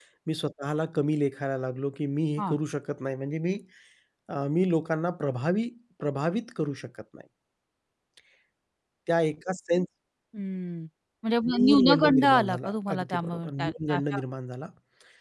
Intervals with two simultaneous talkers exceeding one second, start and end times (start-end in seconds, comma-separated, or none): 11.5-14.2